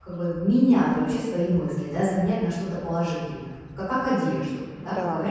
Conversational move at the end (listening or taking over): listening